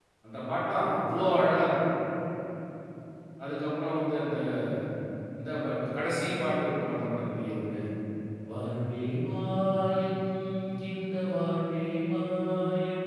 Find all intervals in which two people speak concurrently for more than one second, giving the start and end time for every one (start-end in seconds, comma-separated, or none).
none